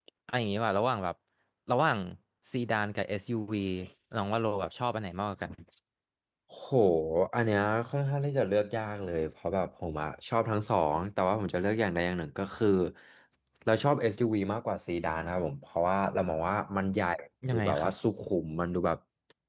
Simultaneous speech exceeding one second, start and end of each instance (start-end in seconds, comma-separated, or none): none